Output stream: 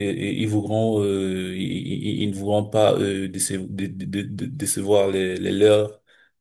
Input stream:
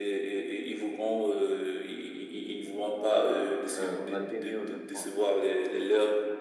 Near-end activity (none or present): present